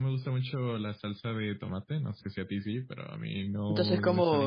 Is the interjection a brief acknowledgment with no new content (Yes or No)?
No